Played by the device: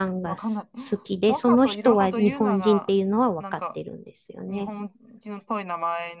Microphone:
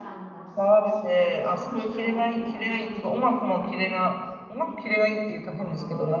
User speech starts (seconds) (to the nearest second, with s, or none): 1 s